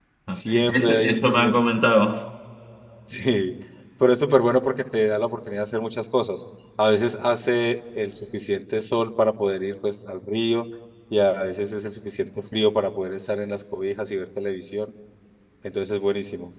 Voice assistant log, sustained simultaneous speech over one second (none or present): present